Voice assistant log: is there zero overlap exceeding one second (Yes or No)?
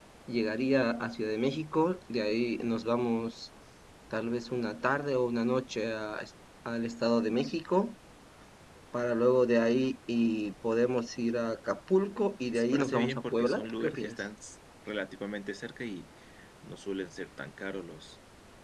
No